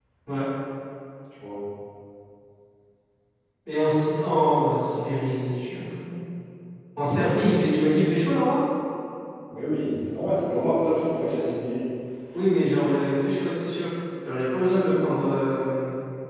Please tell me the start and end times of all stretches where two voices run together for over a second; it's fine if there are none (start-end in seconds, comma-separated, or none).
none